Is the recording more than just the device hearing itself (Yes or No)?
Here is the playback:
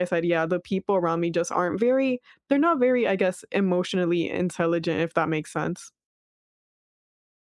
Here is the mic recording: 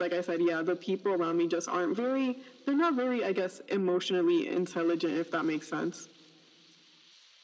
No